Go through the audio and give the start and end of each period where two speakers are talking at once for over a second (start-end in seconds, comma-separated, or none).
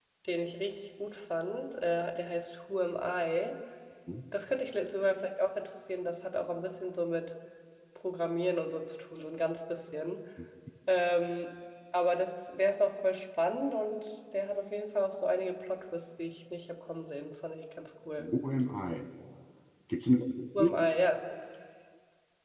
none